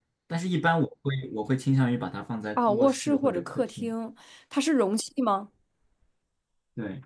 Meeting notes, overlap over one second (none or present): present